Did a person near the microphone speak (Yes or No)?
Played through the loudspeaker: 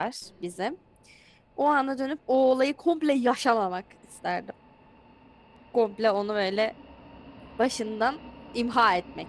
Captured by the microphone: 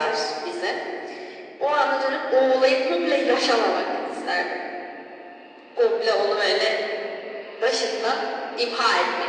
No